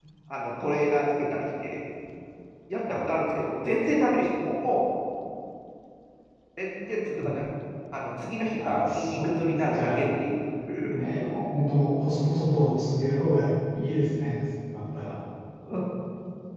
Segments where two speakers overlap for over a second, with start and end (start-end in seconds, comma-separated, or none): 8.6-10.0